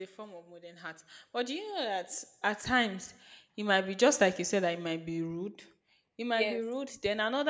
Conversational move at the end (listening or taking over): listening